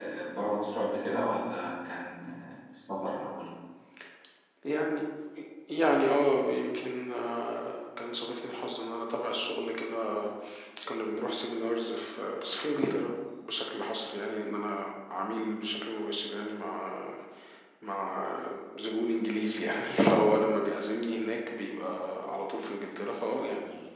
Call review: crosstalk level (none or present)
none